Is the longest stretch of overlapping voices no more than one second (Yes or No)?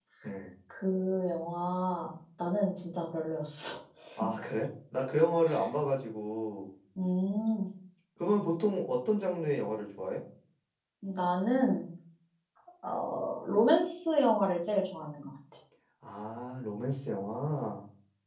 Yes